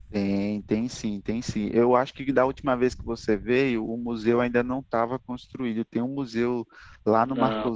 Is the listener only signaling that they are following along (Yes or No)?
Yes